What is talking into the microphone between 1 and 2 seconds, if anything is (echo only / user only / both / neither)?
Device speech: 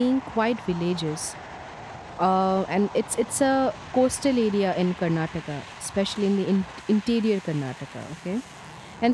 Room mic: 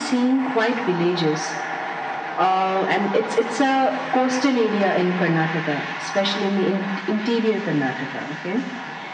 echo only